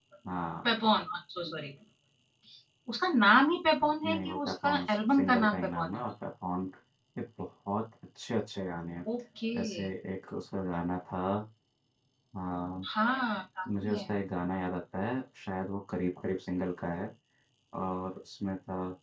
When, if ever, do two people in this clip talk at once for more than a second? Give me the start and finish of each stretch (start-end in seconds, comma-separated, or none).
4.0-6.0